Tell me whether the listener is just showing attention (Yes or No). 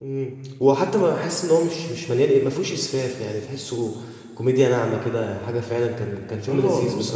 No